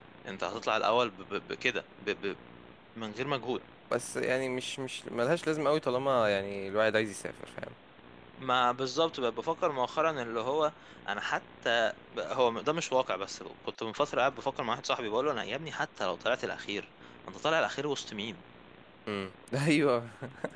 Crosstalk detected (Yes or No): No